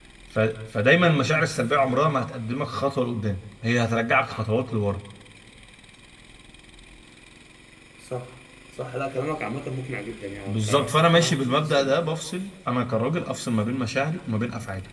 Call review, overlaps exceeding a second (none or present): present